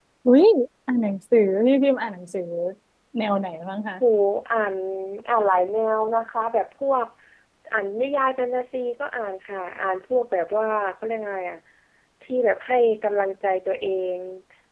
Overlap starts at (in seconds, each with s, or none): none